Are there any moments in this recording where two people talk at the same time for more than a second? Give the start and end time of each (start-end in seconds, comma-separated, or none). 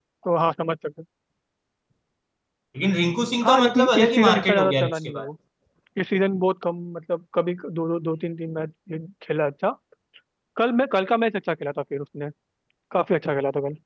3.4-5.3